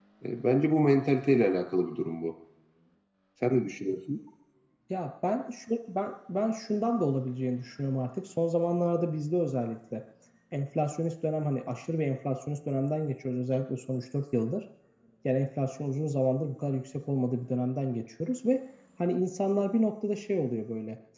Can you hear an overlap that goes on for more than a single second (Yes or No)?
No